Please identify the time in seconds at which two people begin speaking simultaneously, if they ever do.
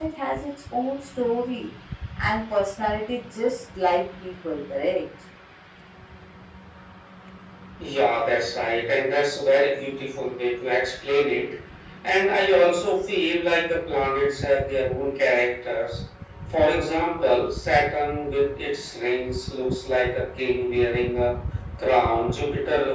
none

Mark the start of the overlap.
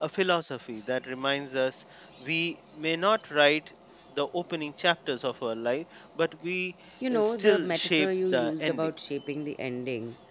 7.0 s

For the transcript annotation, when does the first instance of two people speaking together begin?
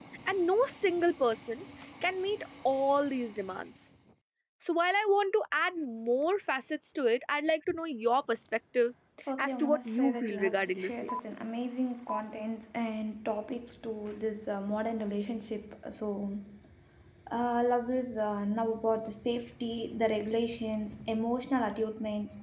9.4 s

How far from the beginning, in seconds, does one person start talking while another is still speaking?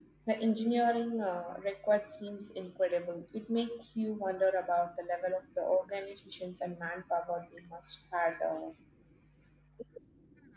none

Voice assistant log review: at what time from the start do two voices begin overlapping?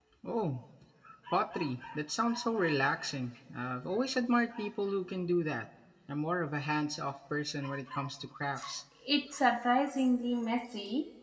none

